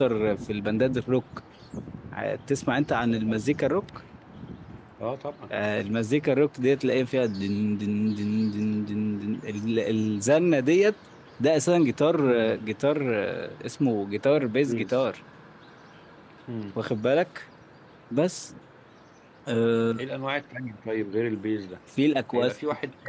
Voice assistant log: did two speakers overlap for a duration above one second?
No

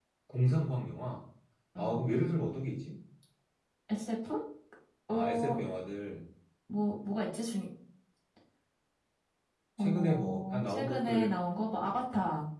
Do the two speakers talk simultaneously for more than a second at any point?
Yes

